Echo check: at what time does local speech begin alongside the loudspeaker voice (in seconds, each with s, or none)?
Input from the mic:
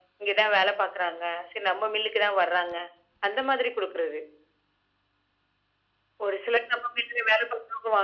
none